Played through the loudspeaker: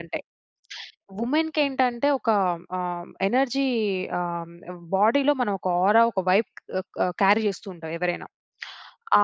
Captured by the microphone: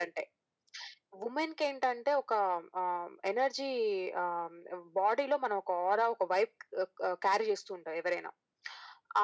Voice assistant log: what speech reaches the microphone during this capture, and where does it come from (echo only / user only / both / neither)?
echo only